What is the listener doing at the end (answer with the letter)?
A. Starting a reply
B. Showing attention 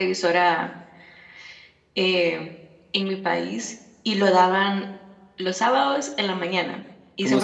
A